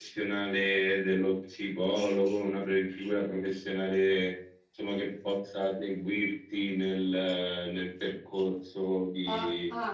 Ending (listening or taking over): taking over